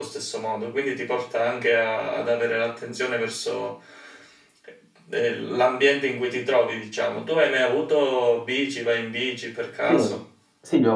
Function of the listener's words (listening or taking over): taking over